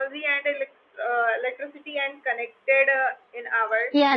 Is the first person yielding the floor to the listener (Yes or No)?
Yes